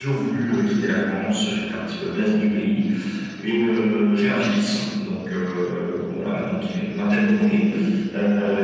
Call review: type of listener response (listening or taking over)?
listening